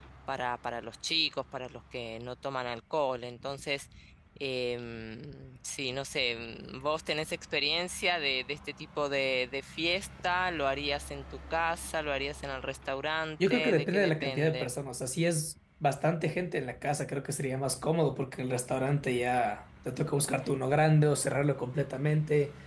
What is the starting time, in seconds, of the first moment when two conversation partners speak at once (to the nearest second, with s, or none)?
13 s